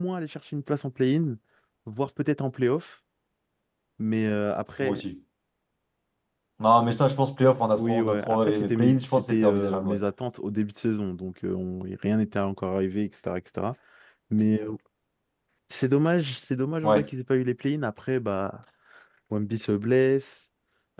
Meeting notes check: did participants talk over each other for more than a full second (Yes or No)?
Yes